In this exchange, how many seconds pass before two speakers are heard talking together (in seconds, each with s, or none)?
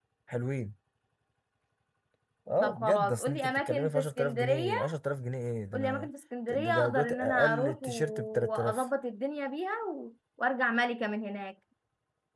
2.6 s